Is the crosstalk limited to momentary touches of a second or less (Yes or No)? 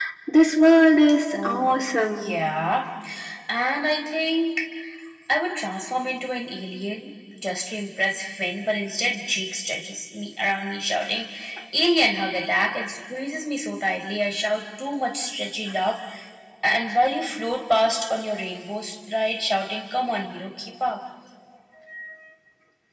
Yes